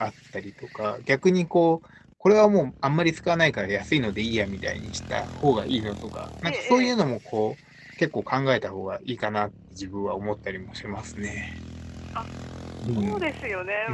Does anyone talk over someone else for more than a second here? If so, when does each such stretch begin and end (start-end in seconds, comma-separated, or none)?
none